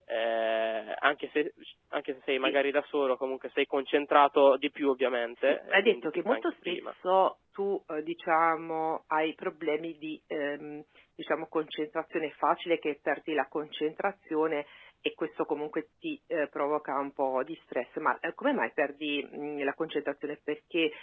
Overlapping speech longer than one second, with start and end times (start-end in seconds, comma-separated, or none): 5.4-6.9